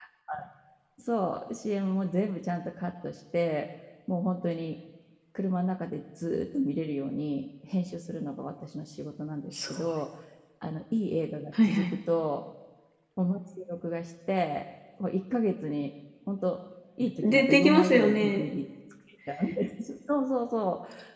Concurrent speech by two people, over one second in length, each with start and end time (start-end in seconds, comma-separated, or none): 17.2-18.5